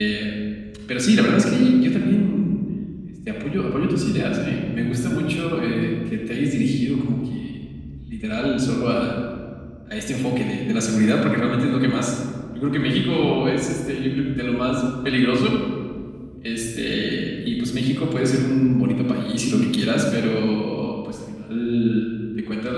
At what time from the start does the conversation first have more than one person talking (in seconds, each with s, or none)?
none